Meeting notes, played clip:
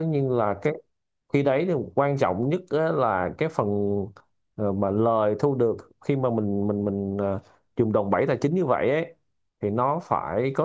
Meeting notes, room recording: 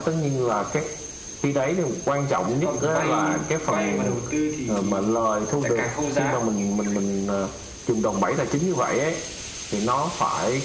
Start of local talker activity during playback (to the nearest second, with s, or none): 2 s